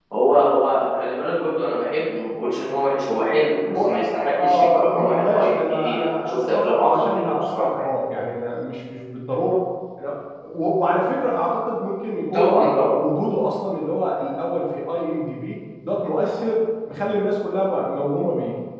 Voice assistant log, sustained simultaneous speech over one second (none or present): present